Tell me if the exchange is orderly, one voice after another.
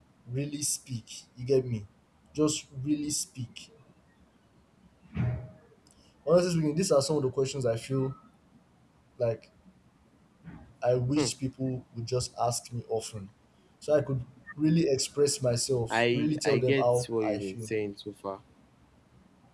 No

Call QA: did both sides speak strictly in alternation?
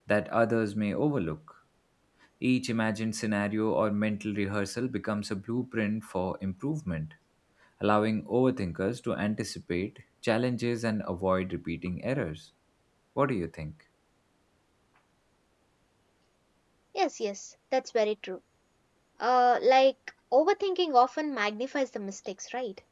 Yes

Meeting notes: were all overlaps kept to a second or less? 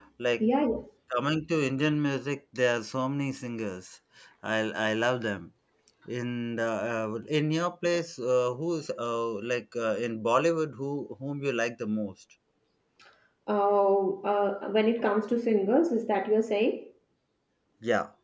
Yes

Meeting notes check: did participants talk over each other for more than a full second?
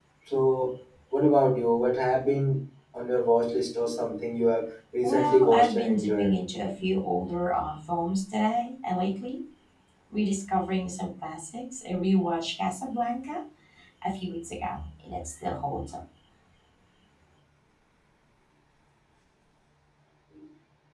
Yes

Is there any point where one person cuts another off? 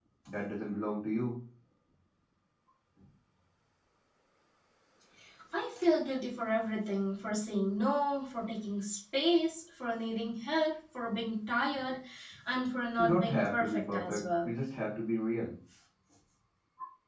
Yes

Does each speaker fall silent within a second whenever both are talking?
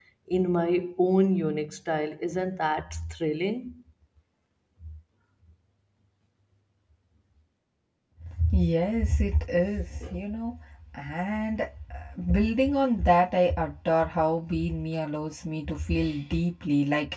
Yes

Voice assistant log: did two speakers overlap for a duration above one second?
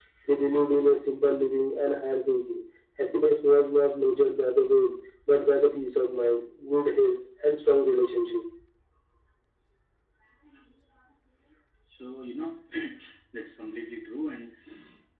No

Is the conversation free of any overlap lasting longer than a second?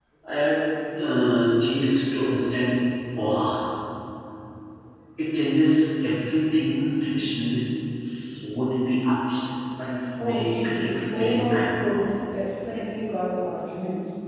No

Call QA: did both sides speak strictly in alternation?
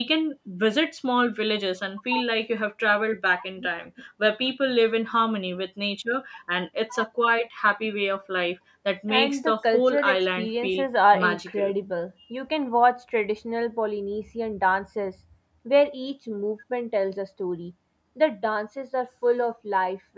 No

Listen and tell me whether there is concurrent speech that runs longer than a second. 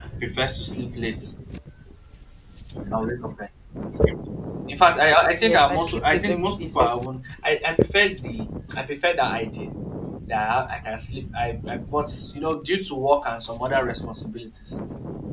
Yes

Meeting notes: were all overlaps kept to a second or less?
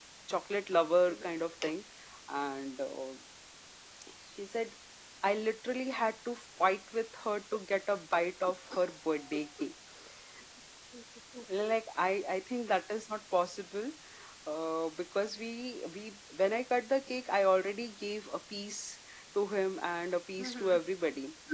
Yes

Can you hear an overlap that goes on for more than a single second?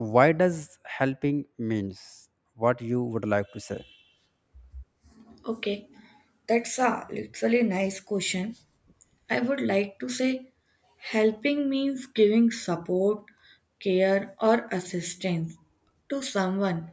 No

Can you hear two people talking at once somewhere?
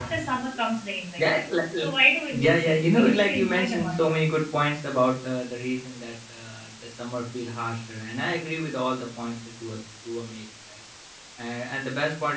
Yes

